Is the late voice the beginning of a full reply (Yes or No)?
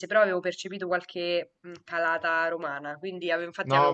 Yes